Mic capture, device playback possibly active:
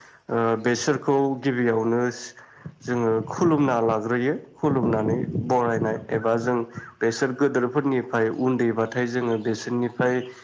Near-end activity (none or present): none